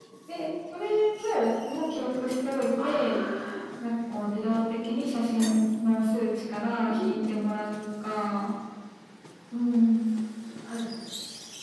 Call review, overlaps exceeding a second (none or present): none